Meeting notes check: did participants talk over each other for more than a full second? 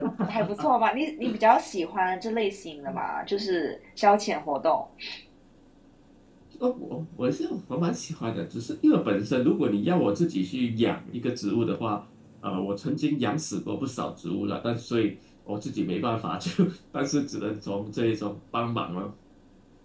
No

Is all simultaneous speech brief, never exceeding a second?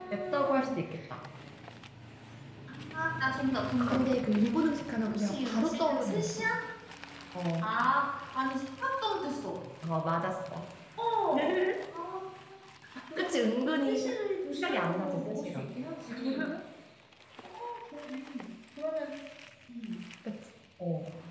No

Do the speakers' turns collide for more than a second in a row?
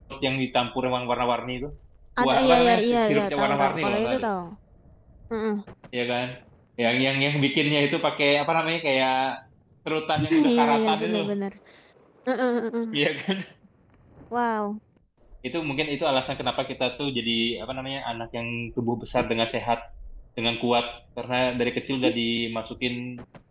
Yes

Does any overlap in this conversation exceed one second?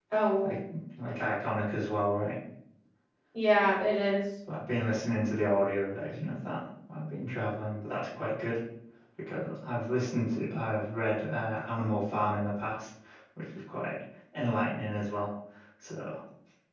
No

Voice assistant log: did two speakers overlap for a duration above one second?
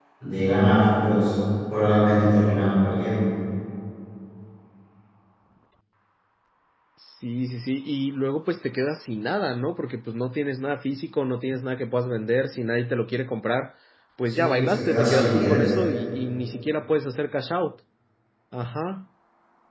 Yes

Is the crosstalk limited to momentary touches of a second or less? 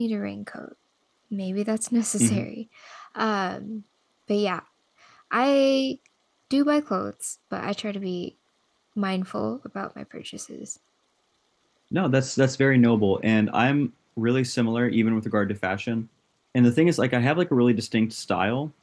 Yes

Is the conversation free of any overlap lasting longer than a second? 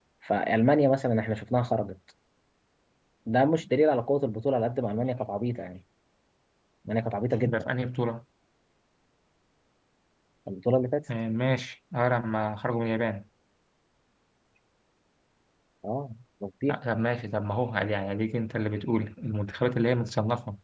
Yes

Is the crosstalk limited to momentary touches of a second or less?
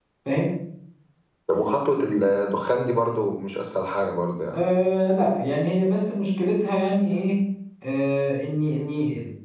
Yes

